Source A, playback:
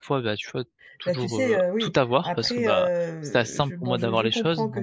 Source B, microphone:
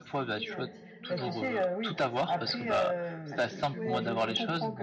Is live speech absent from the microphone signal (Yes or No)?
No